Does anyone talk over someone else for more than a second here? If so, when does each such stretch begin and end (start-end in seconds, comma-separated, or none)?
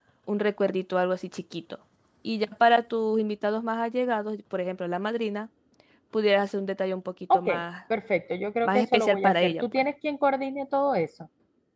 8.6-9.8